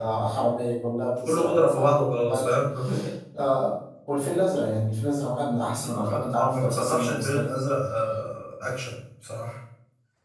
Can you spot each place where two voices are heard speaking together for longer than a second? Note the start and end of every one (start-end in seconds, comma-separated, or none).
1.2-2.6, 5.7-7.5